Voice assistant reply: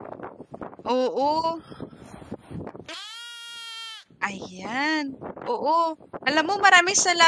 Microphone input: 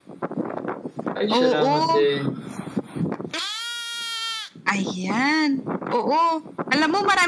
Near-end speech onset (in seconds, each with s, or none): 1.2 s